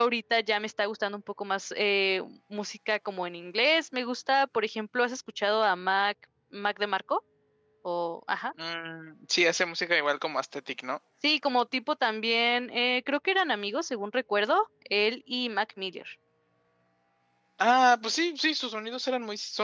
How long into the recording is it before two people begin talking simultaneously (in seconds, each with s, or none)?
none